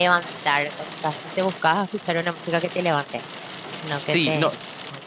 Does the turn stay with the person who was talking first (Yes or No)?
No